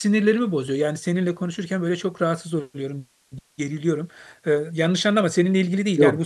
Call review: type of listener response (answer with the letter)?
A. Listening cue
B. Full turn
A